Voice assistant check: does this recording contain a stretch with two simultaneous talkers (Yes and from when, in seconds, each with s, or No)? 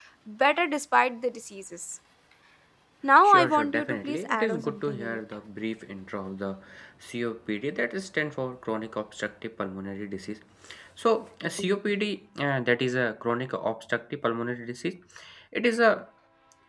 Yes, from 3.2 s